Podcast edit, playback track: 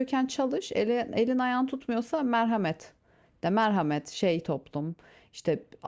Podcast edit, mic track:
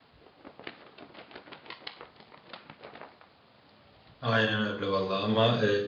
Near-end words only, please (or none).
Aynen öyle vallahi ama e,